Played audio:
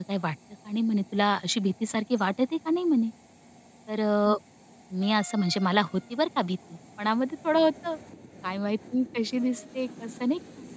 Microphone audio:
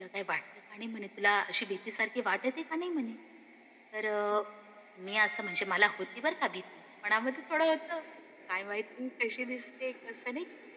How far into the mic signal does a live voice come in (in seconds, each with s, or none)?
none